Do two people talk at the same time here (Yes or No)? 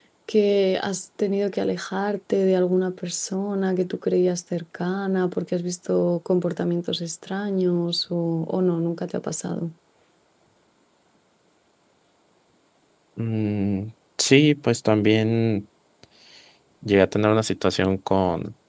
No